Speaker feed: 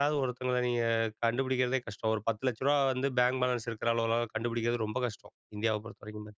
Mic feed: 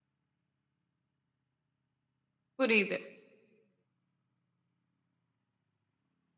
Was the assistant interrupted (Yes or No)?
Yes